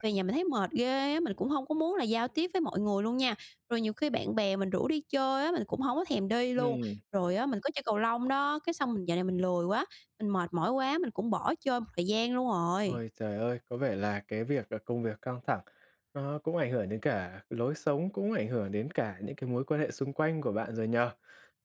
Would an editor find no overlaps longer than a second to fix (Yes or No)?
Yes